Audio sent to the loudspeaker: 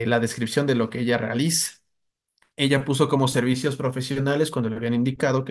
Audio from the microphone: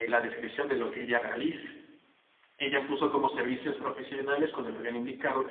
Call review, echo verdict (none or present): present